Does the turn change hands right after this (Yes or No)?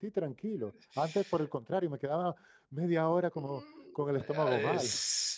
Yes